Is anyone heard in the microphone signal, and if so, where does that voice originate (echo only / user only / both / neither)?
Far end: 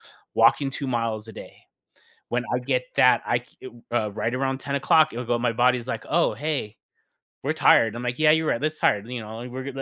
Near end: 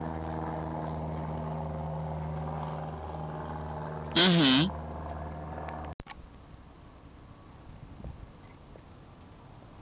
user only